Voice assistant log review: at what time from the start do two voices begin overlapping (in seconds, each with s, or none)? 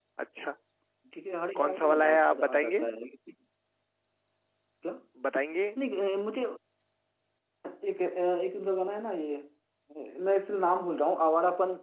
1.6 s